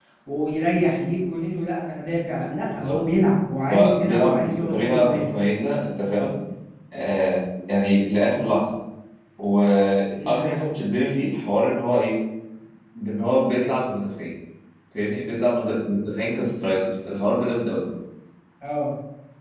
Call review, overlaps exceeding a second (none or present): present